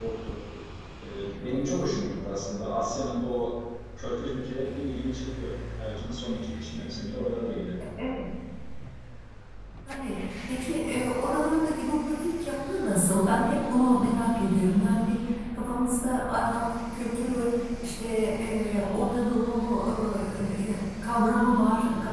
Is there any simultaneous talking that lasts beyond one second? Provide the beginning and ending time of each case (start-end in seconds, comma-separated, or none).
none